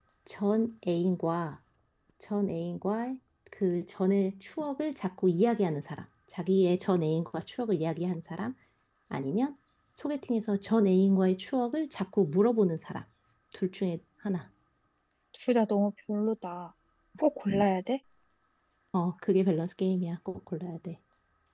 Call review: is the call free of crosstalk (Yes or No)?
Yes